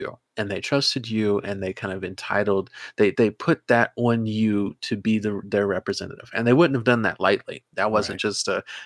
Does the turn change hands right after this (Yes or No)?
No